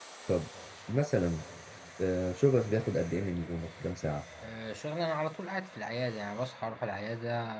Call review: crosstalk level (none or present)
none